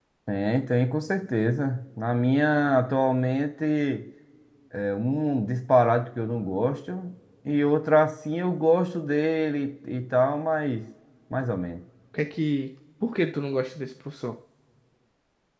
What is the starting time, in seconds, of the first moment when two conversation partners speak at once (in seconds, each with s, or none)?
none